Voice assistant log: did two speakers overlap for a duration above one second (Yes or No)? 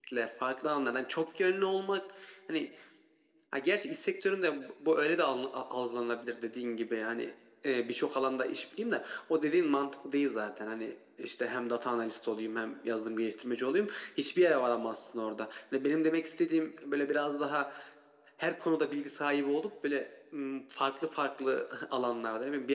No